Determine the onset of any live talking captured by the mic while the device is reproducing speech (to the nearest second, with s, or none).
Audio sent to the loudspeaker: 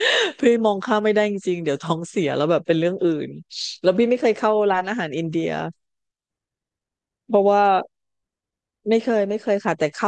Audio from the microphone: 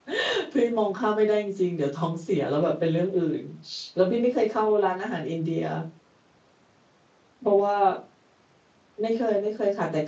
none